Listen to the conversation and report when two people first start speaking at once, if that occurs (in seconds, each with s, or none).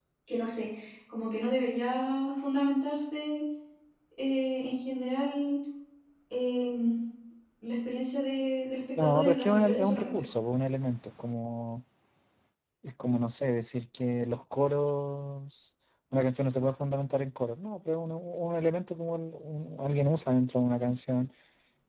9.0 s